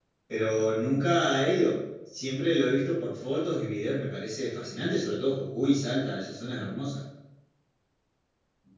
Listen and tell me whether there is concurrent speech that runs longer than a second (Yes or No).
No